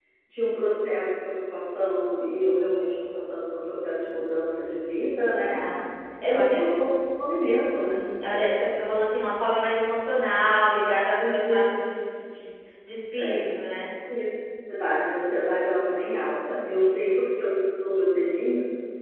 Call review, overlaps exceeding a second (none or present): none